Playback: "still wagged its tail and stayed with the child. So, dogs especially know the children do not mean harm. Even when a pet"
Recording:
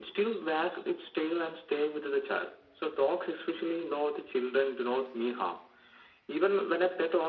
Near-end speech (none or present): none